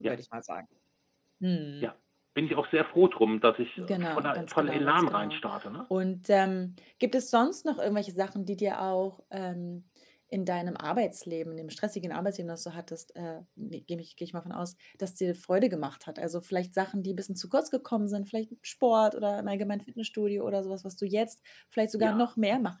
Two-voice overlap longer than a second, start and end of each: 3.8-5.4

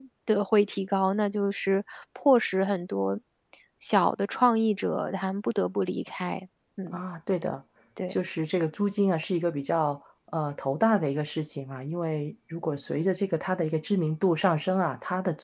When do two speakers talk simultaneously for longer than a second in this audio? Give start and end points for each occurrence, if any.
none

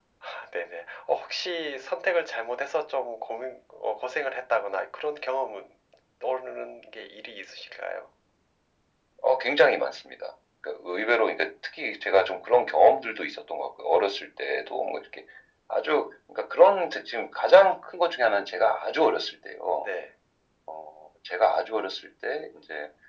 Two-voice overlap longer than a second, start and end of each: none

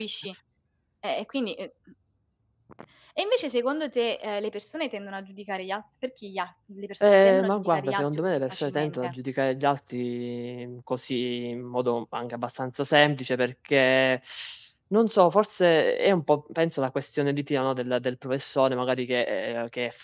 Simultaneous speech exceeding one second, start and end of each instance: 7.0-9.1

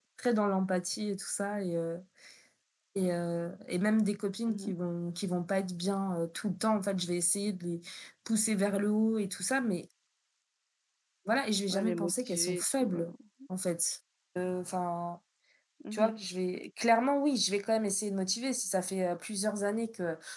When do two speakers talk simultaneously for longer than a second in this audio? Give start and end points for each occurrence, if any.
11.7-13.1

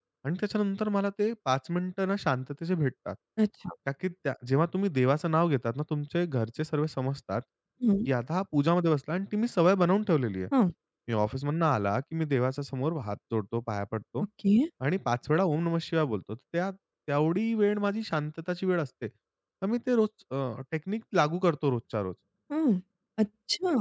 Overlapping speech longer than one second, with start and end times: none

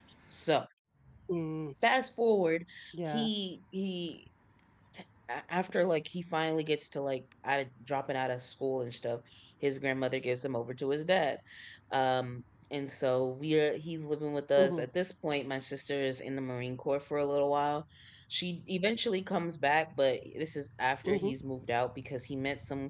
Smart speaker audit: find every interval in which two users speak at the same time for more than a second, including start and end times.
none

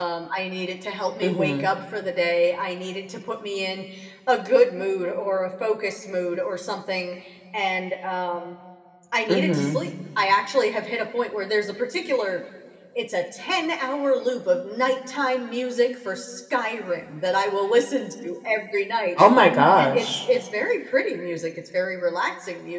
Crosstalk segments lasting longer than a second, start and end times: none

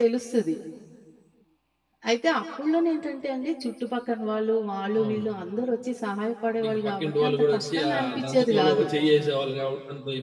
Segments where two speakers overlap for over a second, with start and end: 6.6-8.9

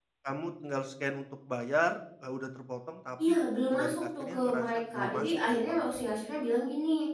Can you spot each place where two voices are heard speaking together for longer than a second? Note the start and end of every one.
3.7-5.7

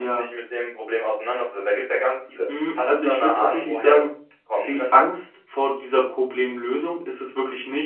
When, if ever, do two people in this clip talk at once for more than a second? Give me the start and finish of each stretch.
2.8-4.1

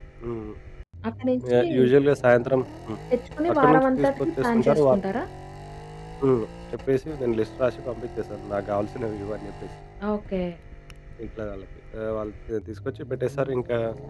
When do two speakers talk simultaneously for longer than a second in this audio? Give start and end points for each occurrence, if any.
3.6-5.0

